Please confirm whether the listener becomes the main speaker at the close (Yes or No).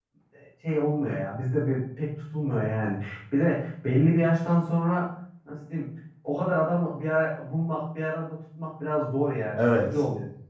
Yes